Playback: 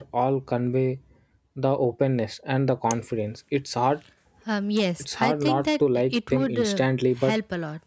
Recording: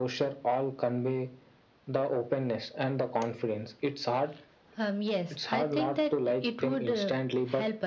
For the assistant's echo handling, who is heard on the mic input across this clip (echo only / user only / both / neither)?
echo only